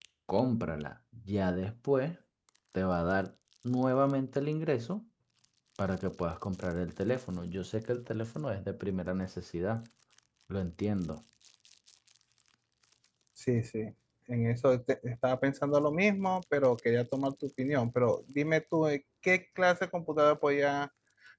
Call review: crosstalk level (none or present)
none